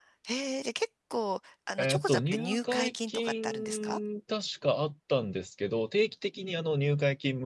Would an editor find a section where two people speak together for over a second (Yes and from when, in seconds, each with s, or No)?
Yes, from 1.8 s